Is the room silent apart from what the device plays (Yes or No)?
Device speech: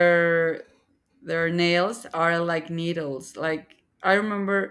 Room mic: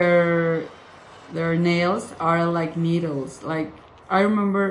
Yes